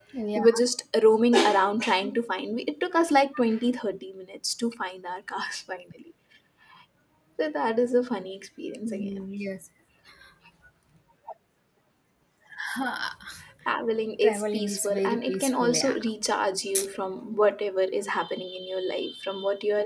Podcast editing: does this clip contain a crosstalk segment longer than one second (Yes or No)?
Yes